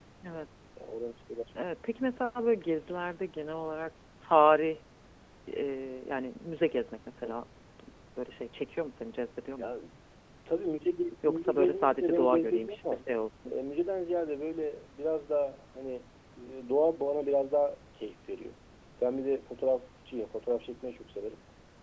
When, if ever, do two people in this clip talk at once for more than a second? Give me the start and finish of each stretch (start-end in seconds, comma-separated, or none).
11.2-13.0